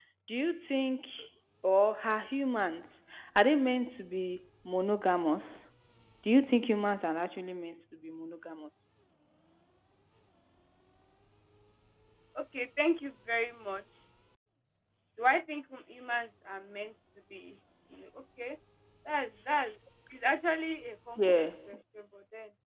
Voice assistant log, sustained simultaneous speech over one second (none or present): none